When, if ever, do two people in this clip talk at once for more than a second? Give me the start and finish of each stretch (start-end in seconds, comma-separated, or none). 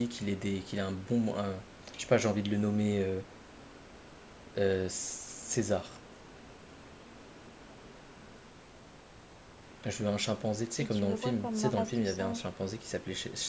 10.8-12.5